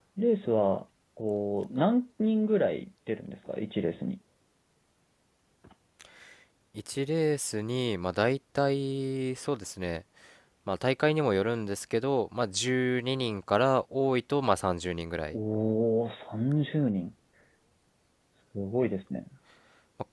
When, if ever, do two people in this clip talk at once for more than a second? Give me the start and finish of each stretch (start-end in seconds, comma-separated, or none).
none